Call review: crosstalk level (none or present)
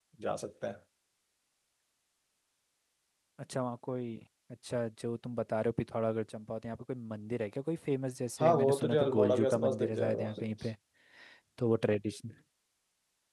present